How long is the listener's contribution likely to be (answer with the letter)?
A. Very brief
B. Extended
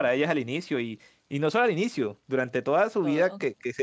A